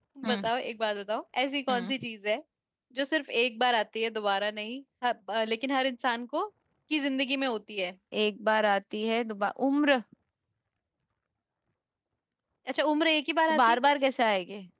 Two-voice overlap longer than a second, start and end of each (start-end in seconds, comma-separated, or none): none